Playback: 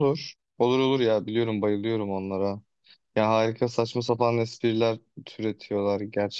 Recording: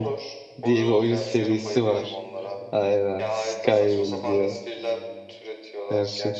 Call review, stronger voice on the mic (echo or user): user